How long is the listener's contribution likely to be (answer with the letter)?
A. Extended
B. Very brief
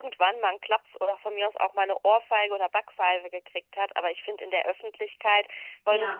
B